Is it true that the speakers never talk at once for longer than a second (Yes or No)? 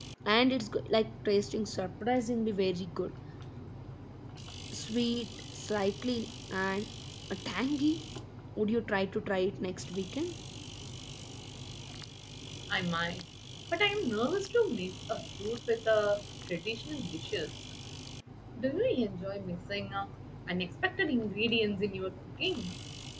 Yes